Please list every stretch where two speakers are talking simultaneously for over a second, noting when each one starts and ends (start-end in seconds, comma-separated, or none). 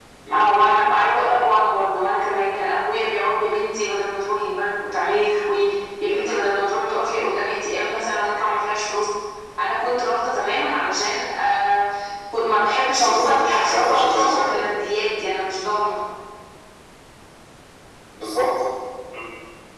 13.0-14.6